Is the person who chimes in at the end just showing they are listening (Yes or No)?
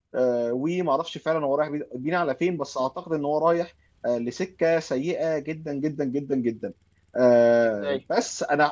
Yes